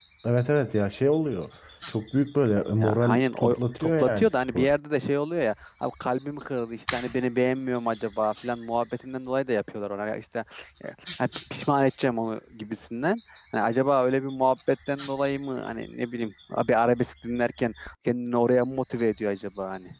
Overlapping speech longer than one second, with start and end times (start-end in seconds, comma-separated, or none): 2.8-4.7